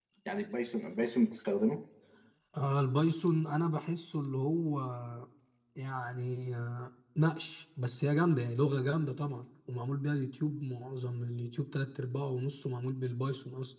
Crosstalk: none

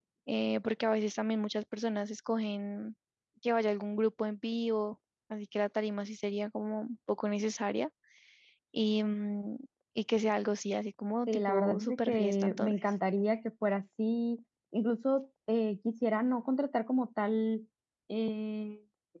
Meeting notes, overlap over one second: present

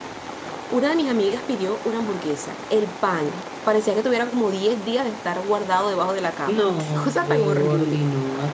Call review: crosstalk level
present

